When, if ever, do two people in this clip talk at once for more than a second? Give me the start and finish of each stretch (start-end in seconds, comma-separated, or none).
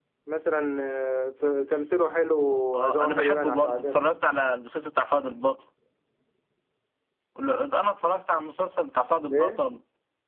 2.8-4.1